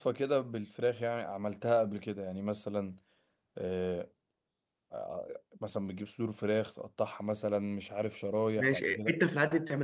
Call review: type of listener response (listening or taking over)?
taking over